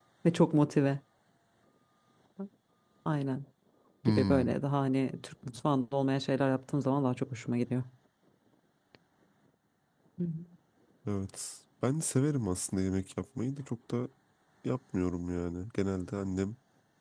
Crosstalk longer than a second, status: none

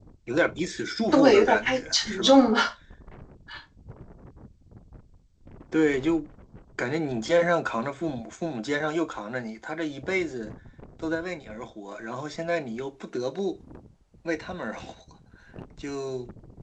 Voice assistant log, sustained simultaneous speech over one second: present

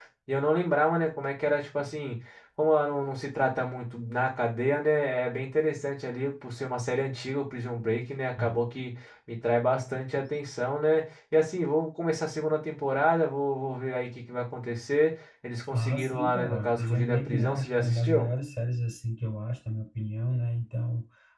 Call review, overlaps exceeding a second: present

